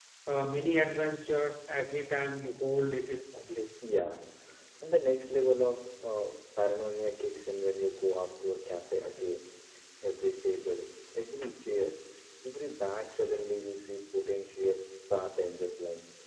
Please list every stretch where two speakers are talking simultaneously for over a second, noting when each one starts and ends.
none

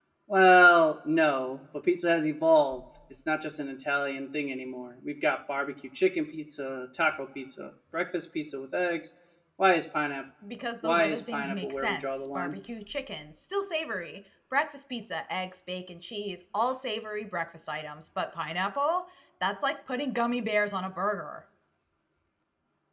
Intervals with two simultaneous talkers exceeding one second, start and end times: 10.8-12.5

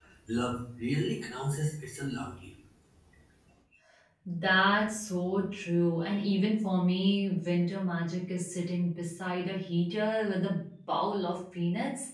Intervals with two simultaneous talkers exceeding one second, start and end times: none

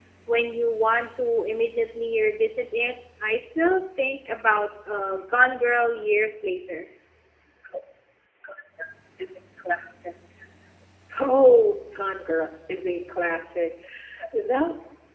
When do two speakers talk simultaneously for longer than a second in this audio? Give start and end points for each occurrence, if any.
none

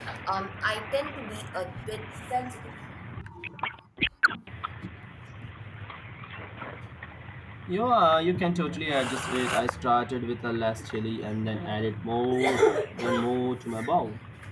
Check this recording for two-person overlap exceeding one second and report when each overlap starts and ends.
none

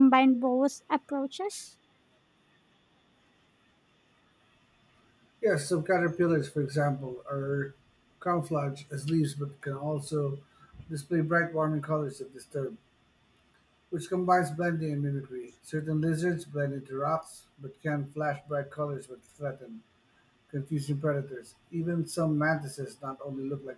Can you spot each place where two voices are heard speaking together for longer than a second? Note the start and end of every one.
none

